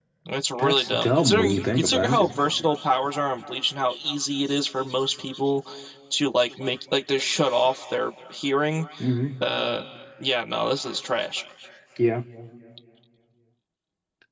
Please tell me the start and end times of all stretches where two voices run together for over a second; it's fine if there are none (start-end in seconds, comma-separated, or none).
0.6-2.3